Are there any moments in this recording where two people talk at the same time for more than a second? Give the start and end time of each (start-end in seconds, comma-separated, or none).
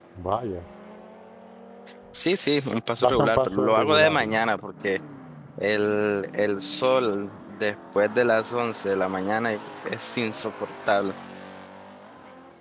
3.0-4.4